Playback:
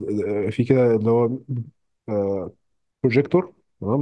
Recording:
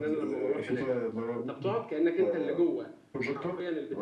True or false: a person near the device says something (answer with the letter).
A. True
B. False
A